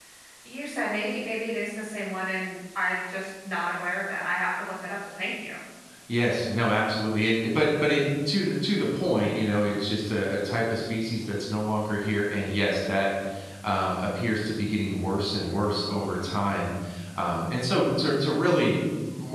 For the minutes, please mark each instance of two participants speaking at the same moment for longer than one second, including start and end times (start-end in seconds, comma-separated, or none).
none